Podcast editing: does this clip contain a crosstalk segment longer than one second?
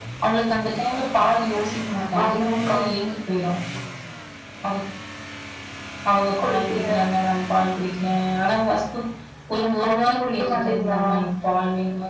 Yes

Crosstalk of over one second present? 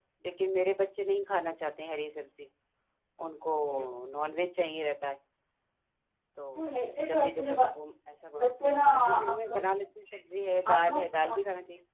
Yes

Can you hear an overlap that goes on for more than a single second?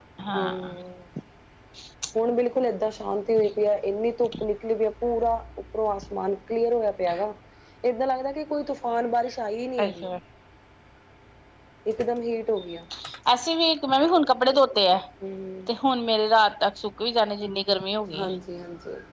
No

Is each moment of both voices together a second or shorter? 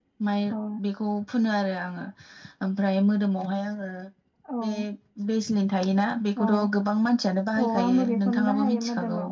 No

